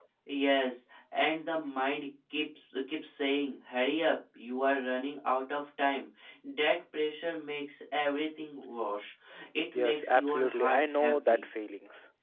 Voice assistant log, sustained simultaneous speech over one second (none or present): present